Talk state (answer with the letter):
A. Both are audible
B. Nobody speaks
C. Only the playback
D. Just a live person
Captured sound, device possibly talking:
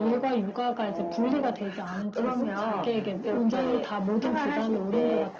A